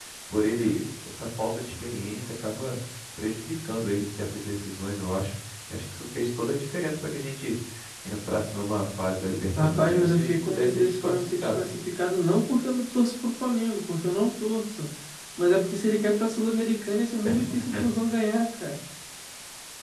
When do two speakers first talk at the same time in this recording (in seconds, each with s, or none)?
9.6 s